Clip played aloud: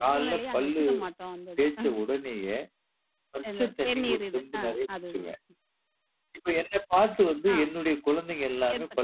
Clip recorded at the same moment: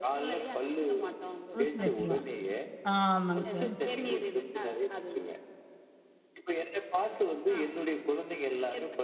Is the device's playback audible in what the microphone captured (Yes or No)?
Yes